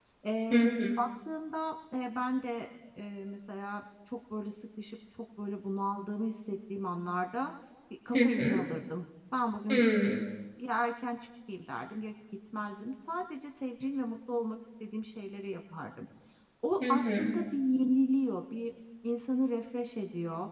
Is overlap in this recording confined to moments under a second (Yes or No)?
Yes